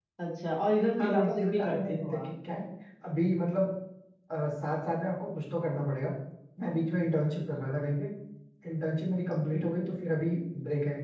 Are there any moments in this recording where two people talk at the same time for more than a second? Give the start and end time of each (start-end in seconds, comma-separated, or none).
1.0-2.3